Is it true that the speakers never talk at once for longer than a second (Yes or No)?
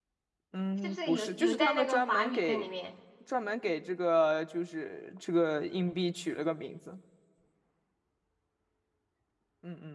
No